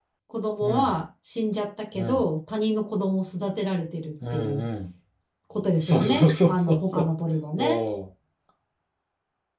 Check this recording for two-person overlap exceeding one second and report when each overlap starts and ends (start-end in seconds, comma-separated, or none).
5.8-7.0